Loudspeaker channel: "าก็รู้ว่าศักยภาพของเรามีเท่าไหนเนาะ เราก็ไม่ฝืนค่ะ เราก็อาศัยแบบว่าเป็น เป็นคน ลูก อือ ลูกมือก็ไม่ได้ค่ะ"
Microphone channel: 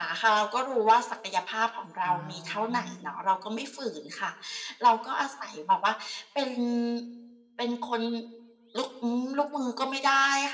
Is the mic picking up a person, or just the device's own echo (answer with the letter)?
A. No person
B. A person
B